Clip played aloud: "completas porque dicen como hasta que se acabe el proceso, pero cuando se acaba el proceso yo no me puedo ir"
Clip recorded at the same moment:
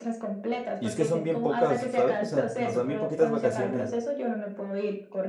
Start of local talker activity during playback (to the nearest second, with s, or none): 1 s